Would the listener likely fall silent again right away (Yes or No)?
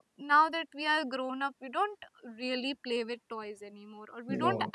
Yes